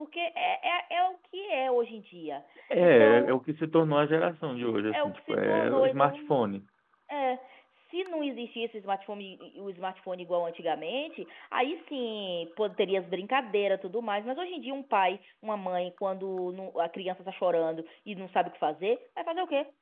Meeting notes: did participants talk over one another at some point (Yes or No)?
Yes